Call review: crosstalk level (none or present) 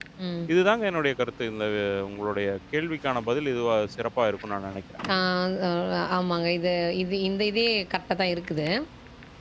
none